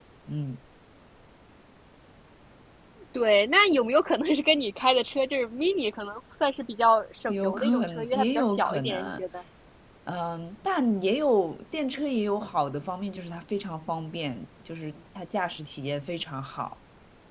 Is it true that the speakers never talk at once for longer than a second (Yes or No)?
No